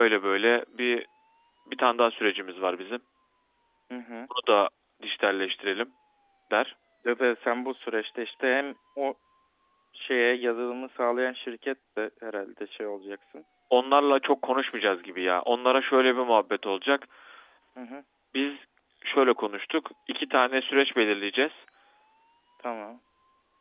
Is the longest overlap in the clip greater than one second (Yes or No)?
No